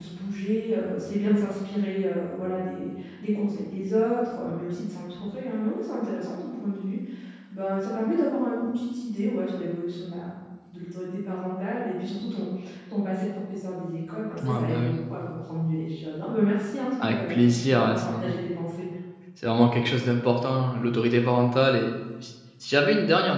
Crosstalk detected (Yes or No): Yes